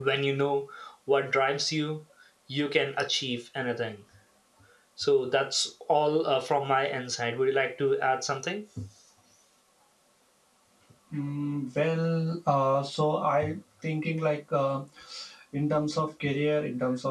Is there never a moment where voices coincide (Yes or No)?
Yes